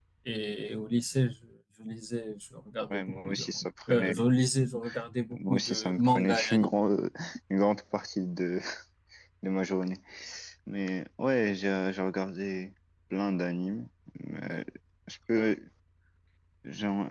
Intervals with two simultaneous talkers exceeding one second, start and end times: 2.9-4.2, 5.3-6.7

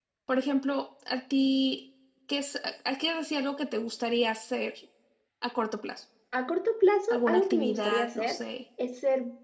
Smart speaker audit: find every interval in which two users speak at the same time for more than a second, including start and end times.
7.1-8.4

